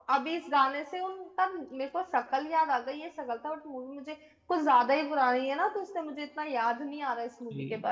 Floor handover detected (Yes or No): Yes